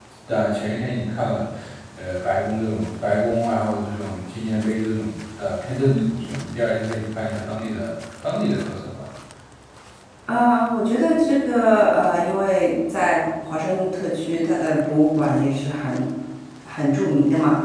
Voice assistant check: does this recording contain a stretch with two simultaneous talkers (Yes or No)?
No